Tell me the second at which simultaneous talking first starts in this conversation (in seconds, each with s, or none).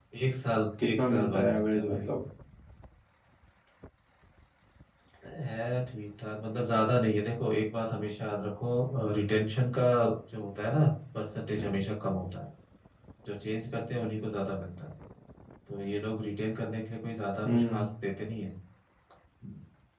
0.8 s